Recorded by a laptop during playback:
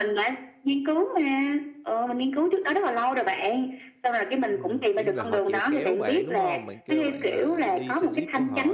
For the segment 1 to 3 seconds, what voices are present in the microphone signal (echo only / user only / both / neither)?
echo only